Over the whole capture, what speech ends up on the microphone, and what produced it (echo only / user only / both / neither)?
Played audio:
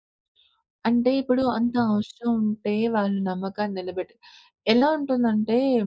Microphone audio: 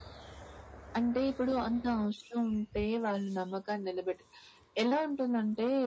echo only